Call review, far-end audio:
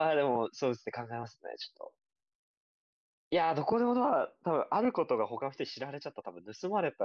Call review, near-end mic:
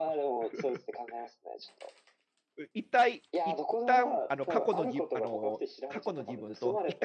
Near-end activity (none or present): present